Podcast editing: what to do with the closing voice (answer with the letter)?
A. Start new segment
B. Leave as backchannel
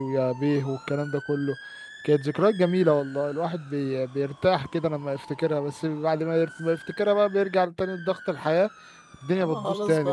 A